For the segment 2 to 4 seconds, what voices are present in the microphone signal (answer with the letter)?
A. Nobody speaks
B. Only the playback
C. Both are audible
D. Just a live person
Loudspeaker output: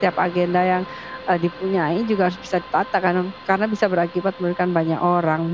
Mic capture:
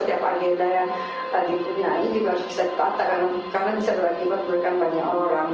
B